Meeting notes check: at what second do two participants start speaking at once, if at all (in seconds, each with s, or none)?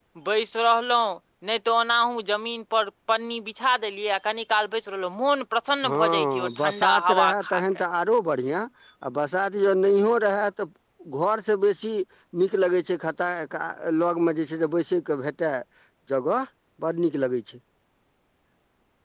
5.8 s